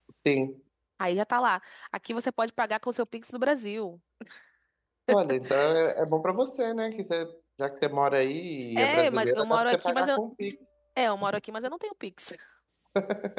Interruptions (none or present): present